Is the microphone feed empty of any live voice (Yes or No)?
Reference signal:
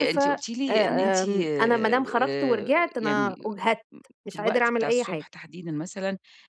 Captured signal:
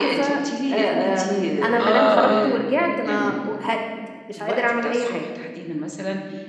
No